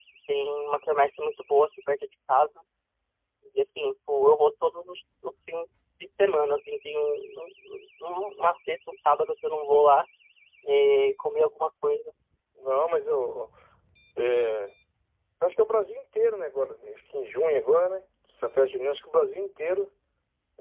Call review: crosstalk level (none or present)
none